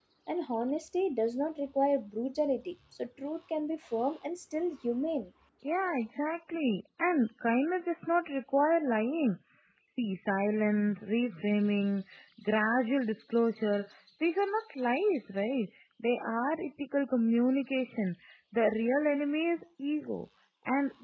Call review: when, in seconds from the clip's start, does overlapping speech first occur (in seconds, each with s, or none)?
none